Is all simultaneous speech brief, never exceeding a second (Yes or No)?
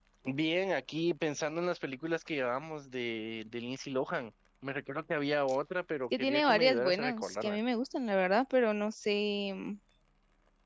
No